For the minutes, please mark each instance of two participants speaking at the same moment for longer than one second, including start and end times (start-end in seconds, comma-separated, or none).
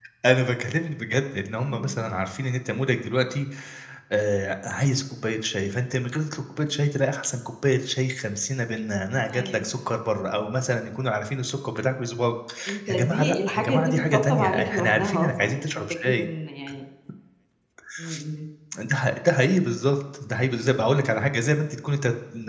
12.9-16.3